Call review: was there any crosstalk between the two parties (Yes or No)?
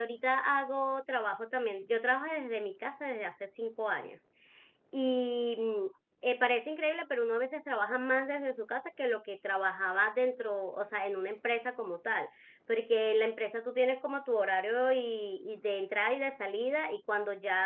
No